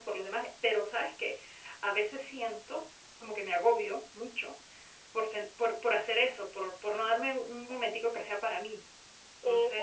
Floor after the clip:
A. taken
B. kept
A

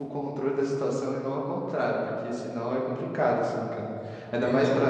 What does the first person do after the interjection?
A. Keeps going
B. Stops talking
B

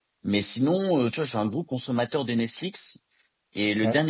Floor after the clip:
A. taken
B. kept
B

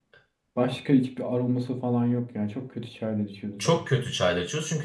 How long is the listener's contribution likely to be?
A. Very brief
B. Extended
B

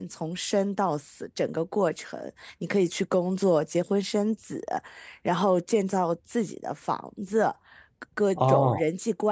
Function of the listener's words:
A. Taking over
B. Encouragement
B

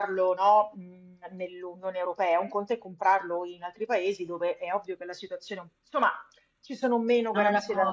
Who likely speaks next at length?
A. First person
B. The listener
B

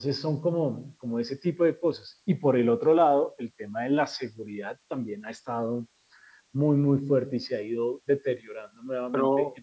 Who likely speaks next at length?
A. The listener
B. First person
A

